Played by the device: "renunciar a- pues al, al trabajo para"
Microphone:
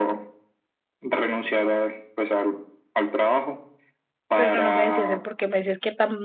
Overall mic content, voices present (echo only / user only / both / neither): both